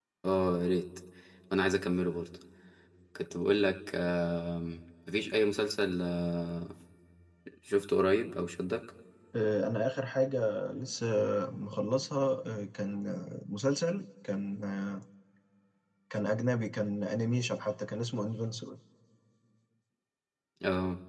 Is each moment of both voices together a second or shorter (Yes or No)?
Yes